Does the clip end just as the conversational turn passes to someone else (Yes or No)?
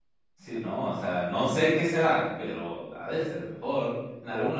Yes